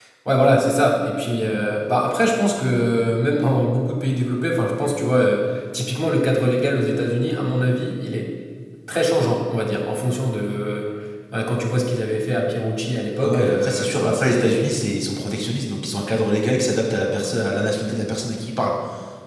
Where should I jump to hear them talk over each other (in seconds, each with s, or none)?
13.2 s